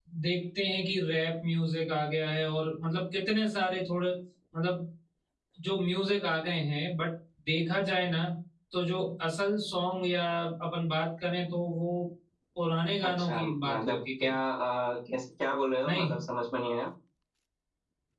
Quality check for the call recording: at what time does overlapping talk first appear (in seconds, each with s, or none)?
13.0 s